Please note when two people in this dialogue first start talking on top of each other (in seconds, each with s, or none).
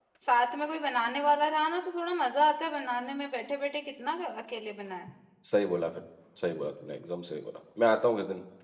none